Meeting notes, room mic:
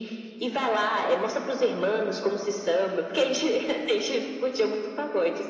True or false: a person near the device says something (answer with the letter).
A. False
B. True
A